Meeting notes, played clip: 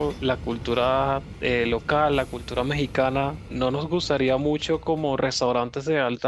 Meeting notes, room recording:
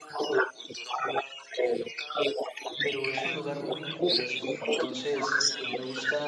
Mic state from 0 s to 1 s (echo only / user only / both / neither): echo only